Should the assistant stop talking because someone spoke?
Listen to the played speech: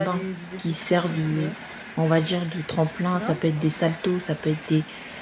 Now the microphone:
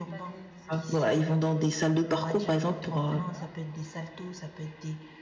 Yes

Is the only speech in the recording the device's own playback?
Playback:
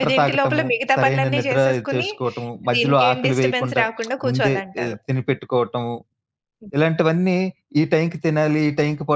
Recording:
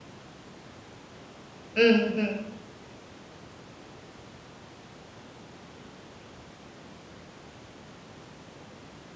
No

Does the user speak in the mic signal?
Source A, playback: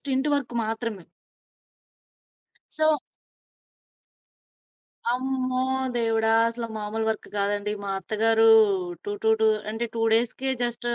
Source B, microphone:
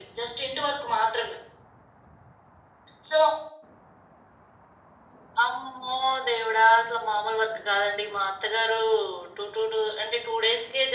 No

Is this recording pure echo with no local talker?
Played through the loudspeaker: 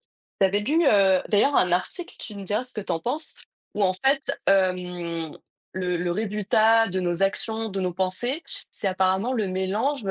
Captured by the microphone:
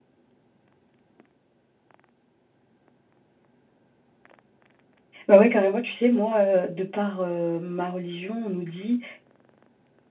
No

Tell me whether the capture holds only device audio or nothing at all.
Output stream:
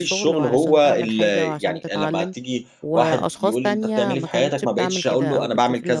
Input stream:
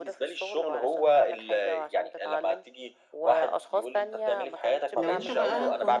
No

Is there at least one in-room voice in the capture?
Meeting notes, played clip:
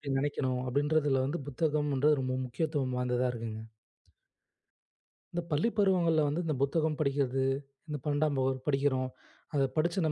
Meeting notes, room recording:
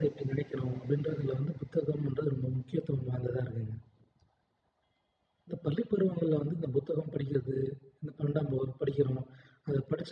No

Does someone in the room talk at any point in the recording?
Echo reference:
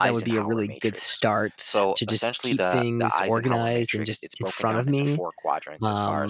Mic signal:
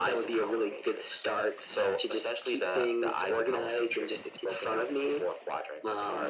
No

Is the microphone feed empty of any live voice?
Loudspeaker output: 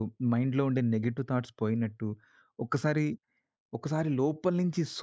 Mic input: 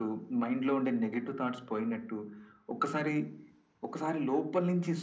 Yes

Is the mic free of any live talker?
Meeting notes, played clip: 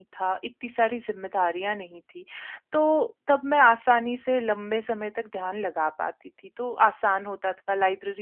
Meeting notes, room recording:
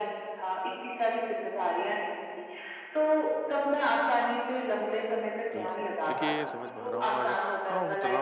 No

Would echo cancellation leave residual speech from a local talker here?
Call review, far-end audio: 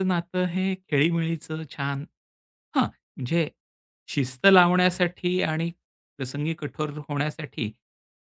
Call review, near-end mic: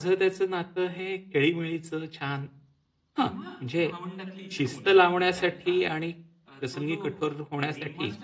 Yes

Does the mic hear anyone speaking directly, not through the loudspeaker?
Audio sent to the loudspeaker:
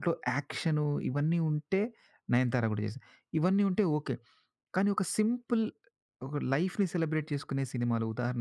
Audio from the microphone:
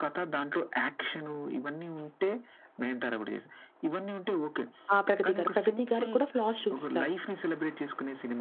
Yes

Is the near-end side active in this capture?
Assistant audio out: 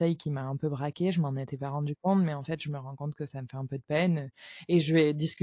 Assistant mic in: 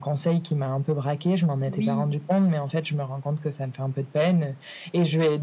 Yes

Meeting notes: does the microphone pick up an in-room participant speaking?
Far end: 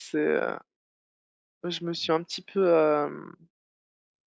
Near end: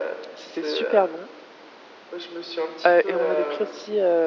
Yes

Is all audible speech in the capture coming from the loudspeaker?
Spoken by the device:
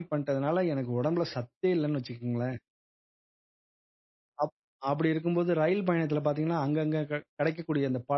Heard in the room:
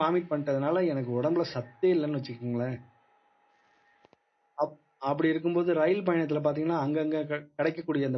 Yes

